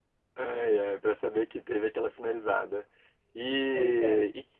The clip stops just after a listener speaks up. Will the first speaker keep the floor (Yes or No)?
Yes